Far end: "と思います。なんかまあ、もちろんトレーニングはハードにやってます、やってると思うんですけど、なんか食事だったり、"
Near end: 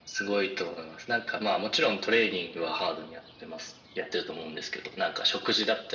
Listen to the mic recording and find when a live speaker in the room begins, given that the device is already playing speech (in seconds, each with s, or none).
none